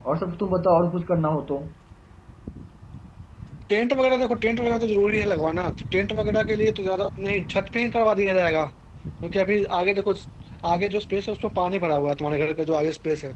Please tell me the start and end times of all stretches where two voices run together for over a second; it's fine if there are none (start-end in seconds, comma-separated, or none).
none